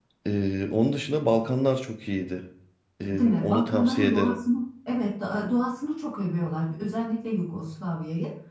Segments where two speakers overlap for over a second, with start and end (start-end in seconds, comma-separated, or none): 3.1-4.4